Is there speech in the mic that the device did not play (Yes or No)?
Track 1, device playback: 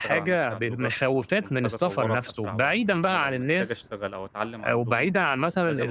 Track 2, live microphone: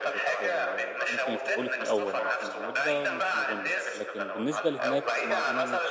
Yes